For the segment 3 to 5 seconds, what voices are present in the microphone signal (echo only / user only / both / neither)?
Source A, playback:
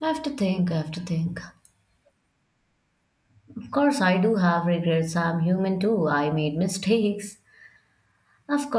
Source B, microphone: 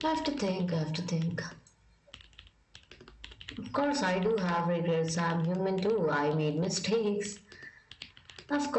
echo only